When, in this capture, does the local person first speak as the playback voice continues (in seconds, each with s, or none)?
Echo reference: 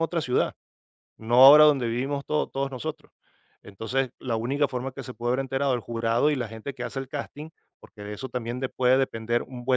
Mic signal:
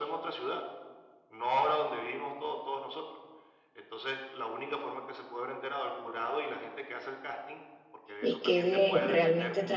8.2 s